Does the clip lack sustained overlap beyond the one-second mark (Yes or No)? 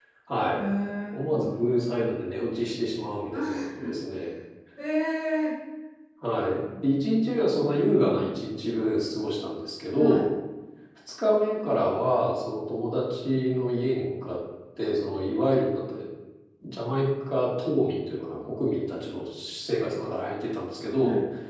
Yes